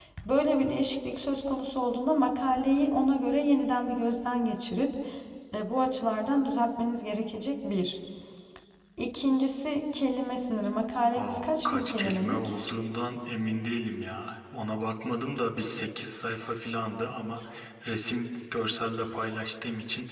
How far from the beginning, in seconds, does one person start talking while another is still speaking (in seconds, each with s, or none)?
11.1 s